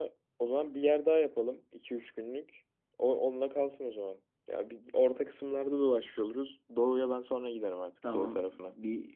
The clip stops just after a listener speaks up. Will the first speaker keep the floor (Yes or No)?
No